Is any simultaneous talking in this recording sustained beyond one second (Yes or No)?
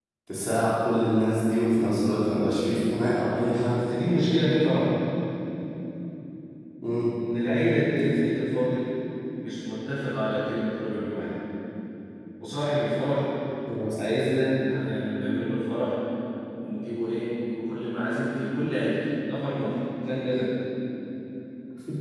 No